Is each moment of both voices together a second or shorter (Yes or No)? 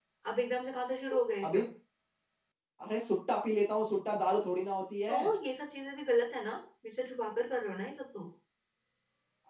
Yes